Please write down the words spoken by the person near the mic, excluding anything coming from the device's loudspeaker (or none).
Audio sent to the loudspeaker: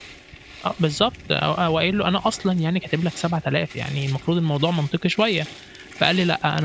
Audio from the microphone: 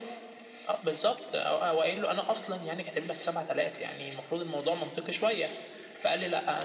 none